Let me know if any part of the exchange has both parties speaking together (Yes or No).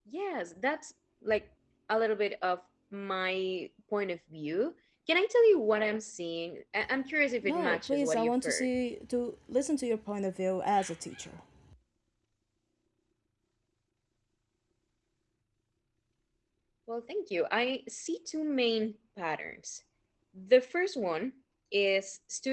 Yes